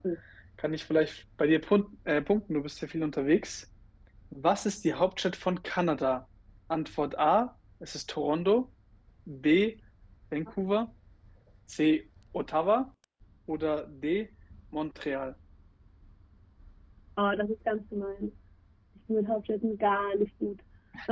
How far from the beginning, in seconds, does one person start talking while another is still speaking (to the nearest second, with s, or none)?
none